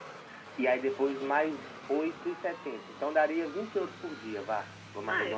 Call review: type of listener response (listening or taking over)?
taking over